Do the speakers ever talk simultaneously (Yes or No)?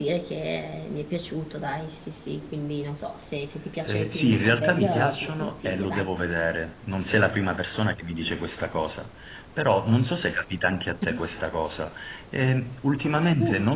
Yes